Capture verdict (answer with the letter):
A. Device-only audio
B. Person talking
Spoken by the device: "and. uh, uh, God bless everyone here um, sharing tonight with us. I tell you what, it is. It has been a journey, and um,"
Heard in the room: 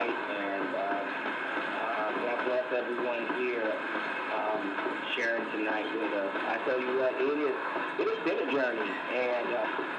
A